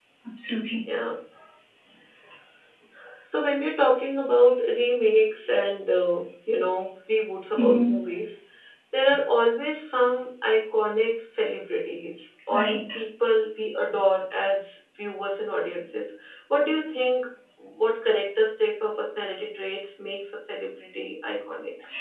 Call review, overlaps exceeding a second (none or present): none